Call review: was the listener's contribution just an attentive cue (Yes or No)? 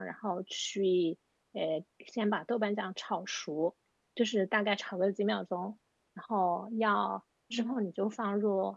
Yes